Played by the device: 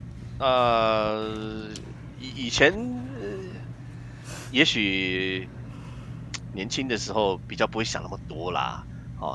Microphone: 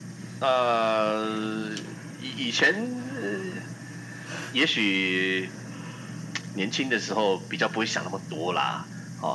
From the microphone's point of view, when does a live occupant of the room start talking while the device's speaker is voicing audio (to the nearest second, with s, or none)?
none